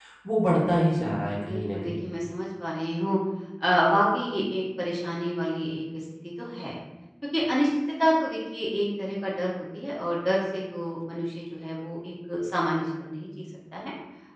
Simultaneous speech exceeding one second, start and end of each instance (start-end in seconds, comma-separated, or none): 0.7-2.0